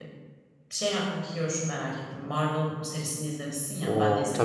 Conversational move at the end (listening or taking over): listening